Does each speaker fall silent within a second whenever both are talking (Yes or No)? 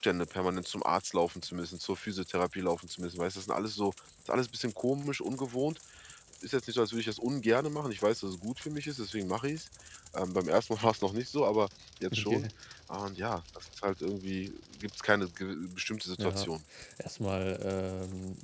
Yes